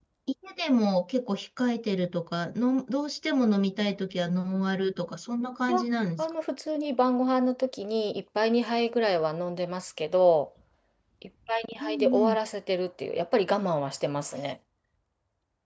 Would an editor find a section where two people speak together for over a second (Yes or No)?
No